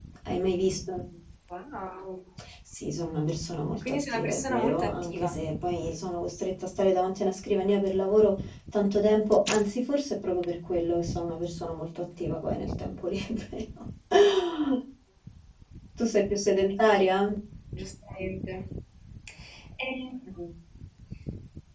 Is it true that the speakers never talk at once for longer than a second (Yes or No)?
No